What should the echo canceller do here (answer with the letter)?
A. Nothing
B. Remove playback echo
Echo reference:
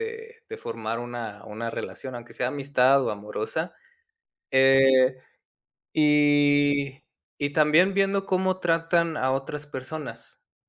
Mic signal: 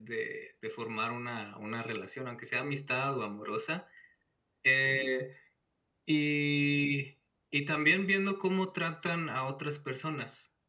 B